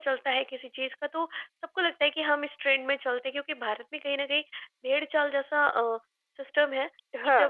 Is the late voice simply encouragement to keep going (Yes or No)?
Yes